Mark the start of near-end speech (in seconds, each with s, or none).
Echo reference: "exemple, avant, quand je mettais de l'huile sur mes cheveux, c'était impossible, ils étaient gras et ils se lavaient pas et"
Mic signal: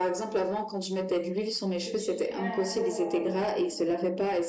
1.8 s